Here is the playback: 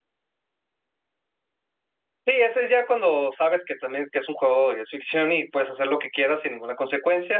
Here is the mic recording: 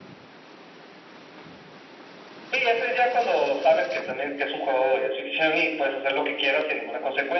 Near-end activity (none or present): none